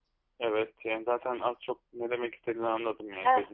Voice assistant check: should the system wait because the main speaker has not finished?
No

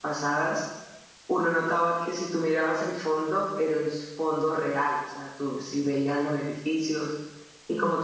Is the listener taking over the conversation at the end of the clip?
No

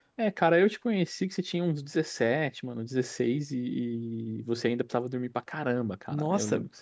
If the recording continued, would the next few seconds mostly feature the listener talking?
Yes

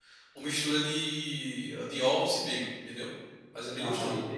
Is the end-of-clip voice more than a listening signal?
Yes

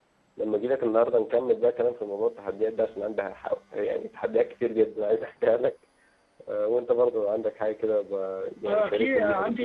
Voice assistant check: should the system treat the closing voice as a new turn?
Yes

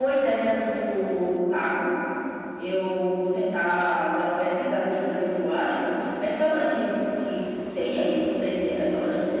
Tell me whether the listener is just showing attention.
Yes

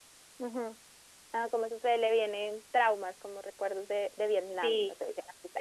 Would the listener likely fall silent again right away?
No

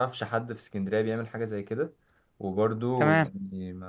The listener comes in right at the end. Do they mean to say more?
No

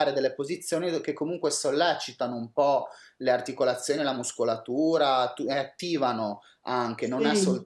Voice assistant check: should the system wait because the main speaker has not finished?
Yes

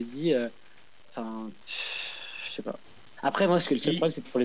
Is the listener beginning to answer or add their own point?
No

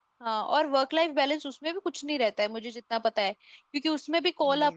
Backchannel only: Yes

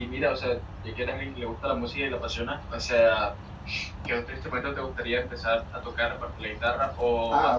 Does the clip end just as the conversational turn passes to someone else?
No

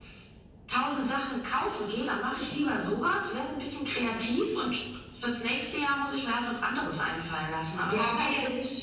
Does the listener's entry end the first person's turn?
Yes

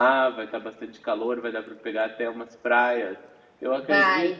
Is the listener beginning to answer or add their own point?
No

